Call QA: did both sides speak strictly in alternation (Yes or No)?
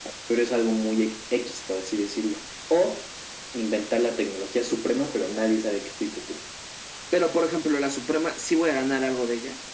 Yes